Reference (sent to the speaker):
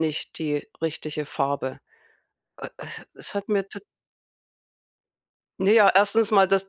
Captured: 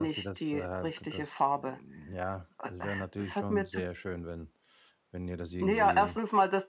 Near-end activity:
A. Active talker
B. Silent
A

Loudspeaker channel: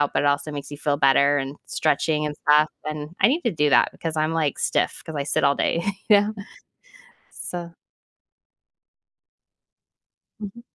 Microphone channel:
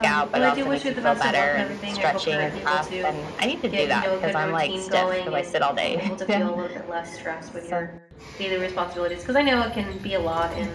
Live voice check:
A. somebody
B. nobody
A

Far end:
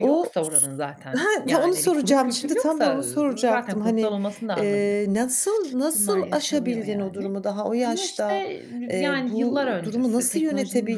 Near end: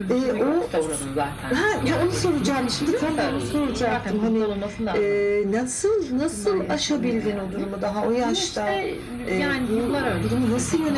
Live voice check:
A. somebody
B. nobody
B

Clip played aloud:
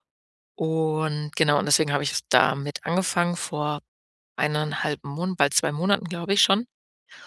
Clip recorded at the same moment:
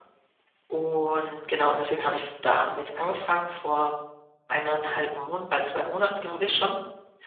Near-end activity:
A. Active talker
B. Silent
B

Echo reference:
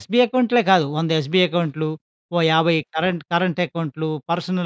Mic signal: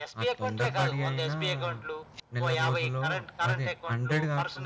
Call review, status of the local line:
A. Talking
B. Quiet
A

